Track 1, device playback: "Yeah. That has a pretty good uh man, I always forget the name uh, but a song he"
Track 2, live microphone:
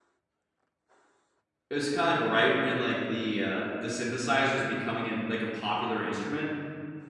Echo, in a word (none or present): none